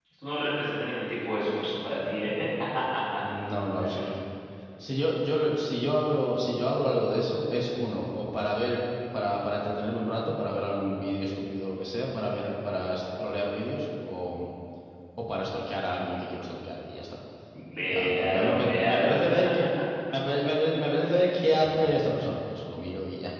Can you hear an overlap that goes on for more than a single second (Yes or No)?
Yes